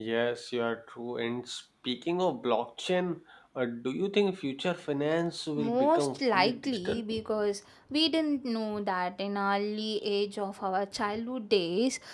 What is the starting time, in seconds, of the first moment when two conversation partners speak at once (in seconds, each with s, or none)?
5.6 s